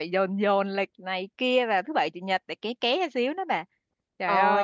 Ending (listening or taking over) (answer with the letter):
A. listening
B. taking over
B